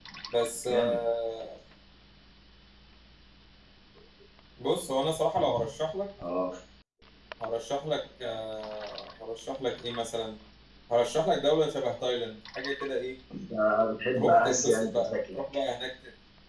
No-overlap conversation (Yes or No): No